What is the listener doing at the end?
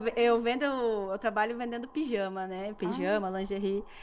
listening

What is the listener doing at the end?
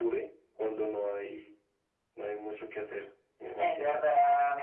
taking over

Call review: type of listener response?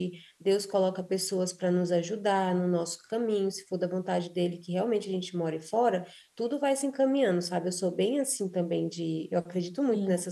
listening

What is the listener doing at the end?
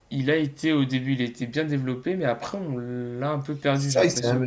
taking over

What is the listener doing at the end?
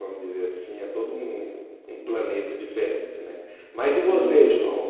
listening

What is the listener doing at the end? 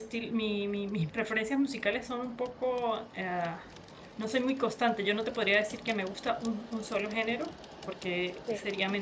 listening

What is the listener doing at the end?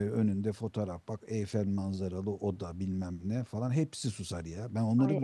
taking over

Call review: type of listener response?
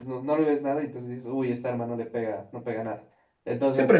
taking over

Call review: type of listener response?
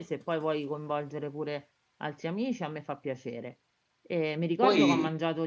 listening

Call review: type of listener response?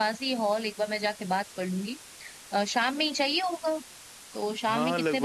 taking over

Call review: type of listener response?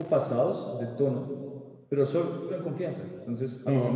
listening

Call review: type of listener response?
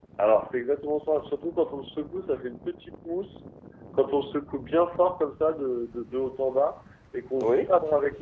listening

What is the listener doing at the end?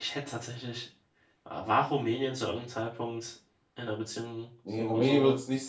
taking over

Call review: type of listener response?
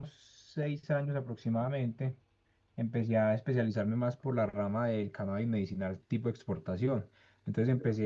listening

